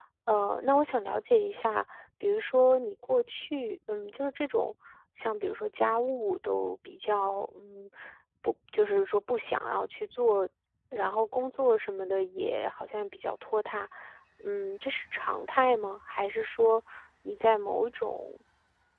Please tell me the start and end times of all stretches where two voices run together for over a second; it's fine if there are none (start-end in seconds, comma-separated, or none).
none